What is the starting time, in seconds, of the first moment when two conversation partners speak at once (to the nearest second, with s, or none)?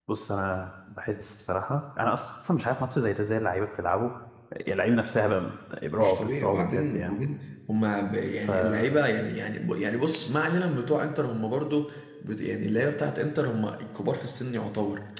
6 s